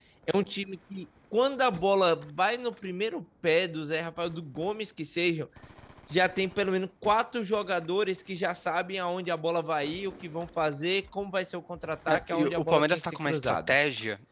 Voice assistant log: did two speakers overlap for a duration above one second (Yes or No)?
Yes